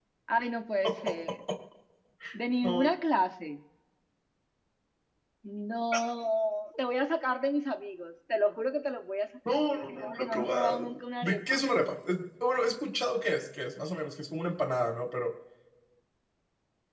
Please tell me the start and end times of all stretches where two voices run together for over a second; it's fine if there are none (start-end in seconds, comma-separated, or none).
9.7-11.6